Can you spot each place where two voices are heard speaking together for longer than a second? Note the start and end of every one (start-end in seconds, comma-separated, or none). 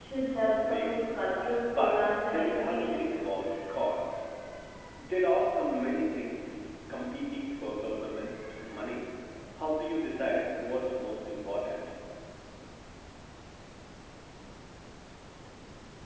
1.7-3.0